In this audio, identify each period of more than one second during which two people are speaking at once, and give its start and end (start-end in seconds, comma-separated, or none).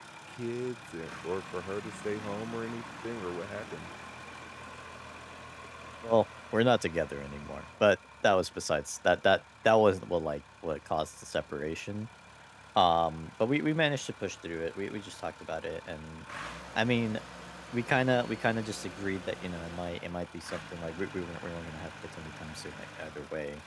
none